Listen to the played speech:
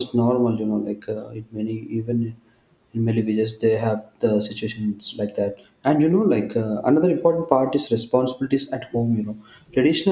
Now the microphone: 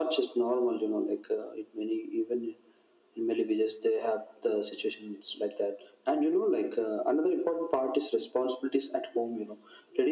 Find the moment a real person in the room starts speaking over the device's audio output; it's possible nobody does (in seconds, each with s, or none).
none